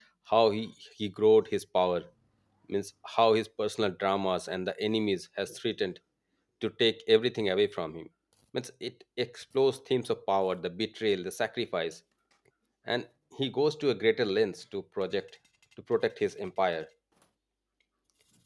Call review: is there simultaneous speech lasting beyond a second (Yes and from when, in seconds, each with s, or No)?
No